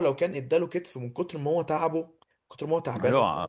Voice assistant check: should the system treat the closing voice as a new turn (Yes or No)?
Yes